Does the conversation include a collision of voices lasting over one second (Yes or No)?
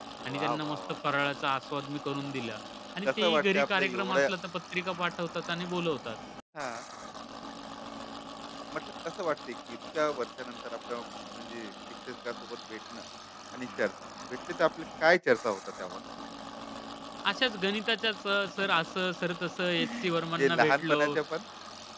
Yes